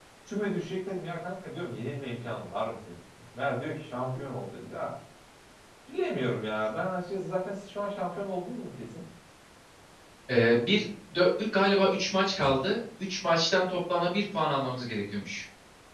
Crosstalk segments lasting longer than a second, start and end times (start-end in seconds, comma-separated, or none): none